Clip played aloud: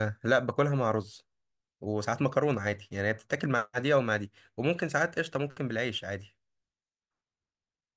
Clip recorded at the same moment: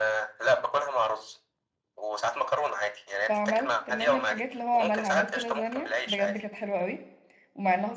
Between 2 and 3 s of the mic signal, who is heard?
echo only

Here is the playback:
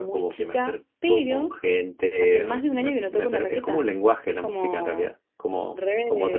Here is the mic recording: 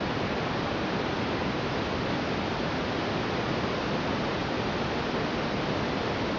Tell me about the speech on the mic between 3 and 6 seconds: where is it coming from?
neither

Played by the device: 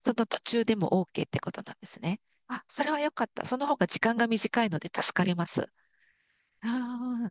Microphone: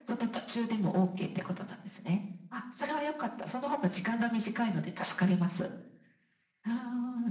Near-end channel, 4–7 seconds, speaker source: echo only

